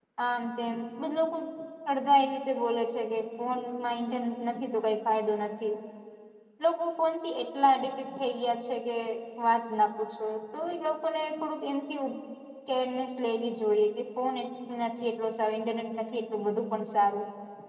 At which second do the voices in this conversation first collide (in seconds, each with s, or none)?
none